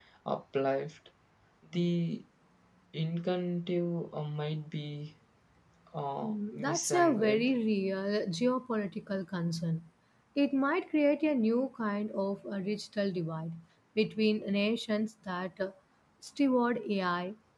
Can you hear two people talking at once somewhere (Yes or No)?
Yes